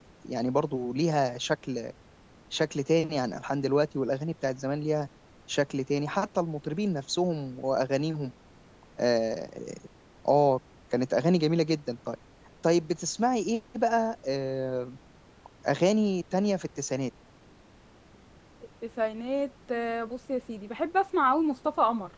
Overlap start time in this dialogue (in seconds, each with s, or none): none